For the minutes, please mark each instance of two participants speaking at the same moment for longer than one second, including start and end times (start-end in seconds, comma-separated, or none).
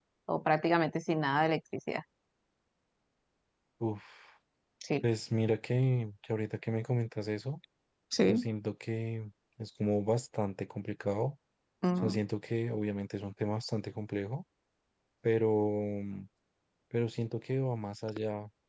none